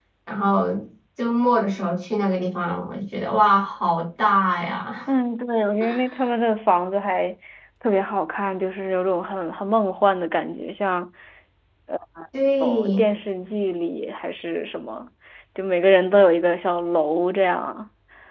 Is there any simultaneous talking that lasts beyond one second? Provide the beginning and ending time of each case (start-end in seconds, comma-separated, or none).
none